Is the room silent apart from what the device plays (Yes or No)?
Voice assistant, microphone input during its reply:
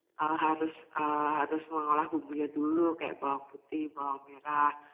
Yes